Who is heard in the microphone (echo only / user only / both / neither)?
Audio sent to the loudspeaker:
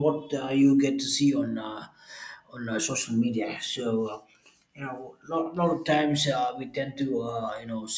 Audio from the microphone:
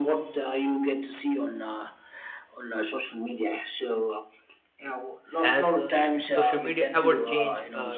both